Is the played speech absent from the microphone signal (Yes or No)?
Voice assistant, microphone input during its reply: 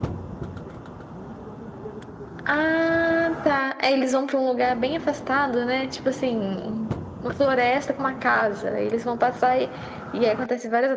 No